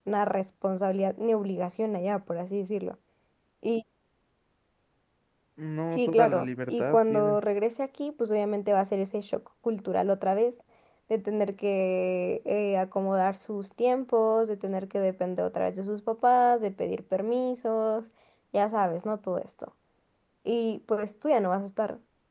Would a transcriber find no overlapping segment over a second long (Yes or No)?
No